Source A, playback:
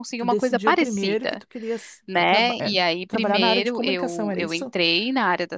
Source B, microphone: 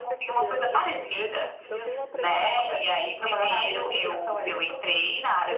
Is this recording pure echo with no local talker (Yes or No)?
No